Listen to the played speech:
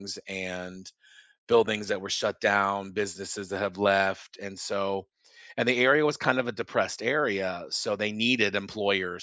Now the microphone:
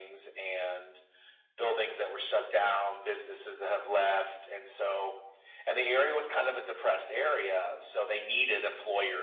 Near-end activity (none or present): none